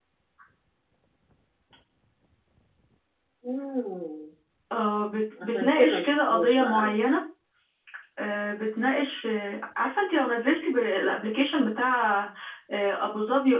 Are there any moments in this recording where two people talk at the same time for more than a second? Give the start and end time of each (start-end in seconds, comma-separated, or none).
5.4-6.9